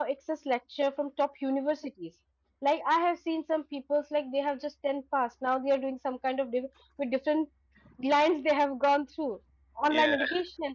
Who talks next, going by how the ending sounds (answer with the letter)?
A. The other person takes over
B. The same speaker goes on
B